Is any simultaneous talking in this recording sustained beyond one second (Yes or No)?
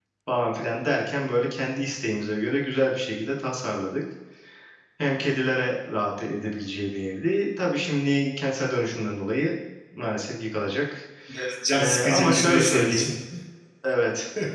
Yes